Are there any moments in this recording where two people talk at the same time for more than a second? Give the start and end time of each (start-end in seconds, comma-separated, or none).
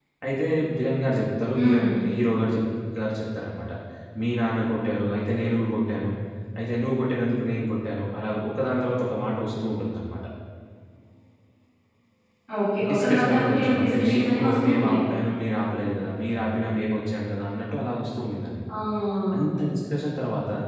12.9-15.0